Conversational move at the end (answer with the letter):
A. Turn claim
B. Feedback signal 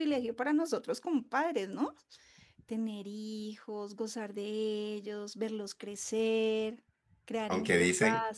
A